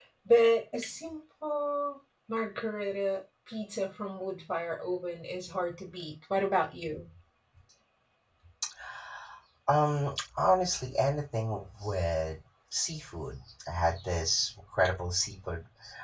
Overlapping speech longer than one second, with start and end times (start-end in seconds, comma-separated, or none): none